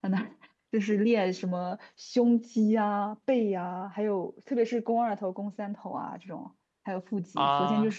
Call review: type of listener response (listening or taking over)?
listening